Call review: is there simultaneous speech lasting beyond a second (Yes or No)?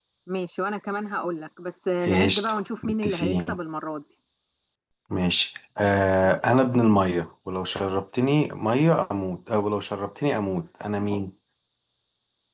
Yes